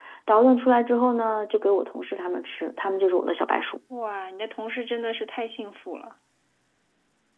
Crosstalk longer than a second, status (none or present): none